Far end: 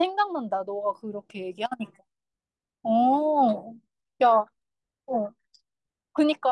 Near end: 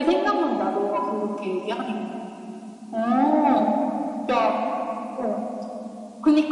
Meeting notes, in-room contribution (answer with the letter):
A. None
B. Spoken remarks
A